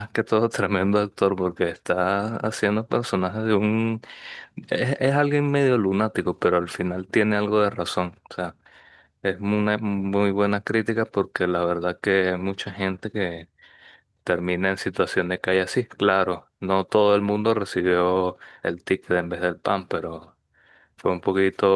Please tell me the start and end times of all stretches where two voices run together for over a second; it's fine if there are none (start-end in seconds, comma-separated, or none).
none